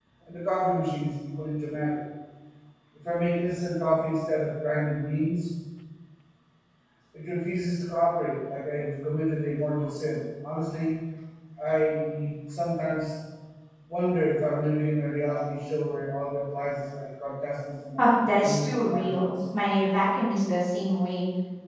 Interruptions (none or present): present